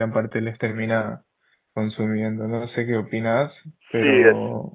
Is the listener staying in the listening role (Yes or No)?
No